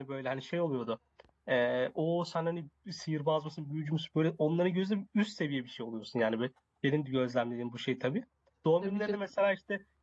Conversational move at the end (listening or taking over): listening